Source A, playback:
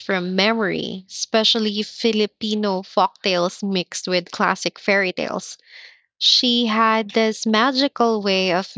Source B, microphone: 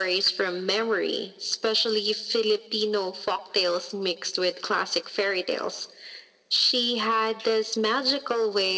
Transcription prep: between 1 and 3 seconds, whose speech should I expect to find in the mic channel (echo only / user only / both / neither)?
echo only